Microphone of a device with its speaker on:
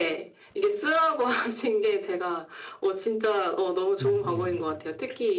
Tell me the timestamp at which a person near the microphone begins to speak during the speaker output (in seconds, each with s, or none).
4.0 s